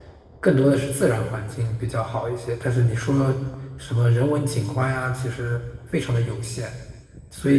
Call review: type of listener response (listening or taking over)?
taking over